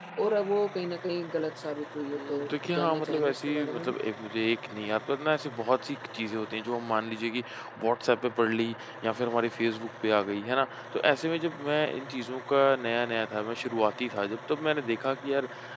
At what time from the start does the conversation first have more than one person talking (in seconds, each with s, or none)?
2.1 s